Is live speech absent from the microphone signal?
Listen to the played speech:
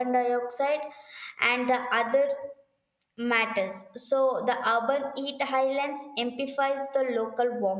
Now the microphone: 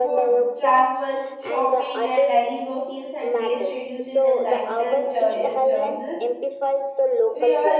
No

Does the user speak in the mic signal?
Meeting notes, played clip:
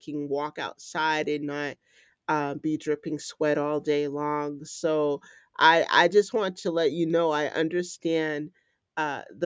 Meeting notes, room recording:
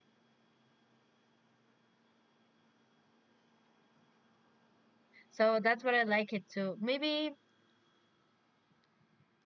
Yes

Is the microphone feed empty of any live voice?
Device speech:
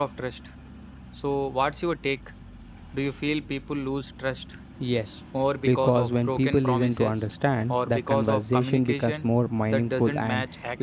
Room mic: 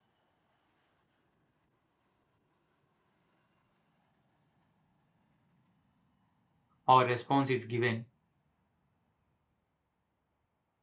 No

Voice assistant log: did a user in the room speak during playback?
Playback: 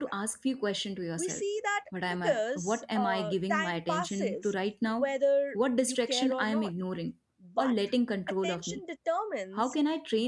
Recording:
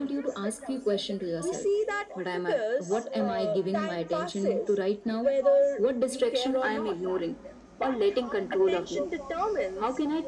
Yes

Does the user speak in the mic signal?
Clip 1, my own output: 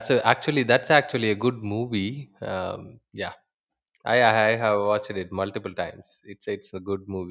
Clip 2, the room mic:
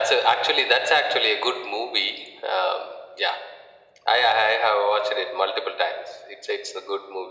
No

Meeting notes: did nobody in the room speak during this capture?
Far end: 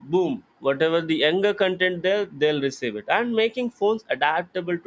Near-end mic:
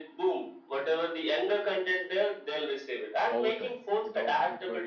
No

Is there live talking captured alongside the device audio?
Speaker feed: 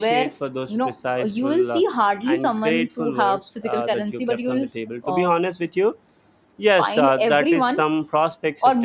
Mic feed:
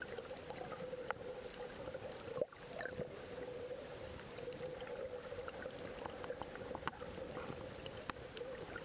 No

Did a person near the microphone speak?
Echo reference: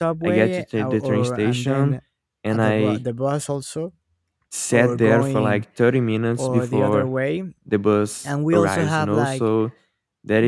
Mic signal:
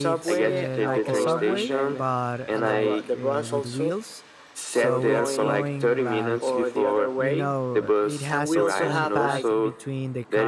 Yes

